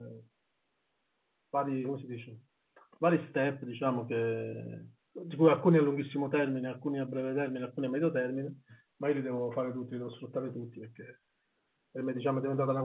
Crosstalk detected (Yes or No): No